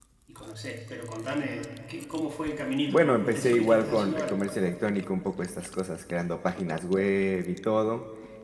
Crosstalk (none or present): present